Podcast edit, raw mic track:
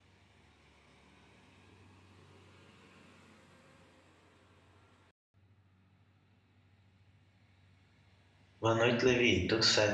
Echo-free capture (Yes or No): Yes